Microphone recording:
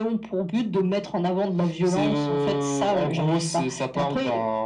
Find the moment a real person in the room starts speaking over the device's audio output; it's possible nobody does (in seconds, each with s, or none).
none